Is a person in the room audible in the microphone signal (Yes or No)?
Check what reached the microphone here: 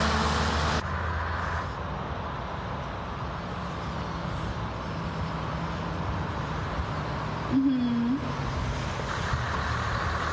Yes